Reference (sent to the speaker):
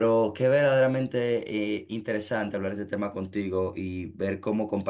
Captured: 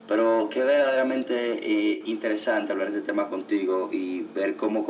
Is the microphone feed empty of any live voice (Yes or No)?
Yes